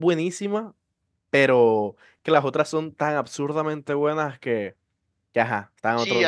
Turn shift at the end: Yes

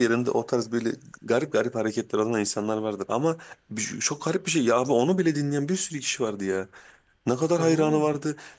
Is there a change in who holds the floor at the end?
No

